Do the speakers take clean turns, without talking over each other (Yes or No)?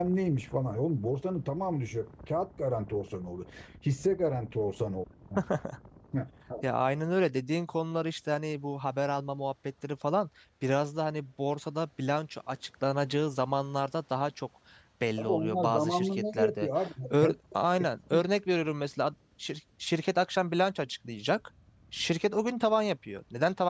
No